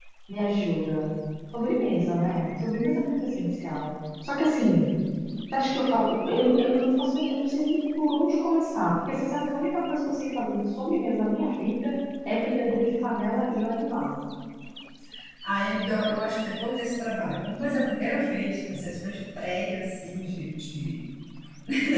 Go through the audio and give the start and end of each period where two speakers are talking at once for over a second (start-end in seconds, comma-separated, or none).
none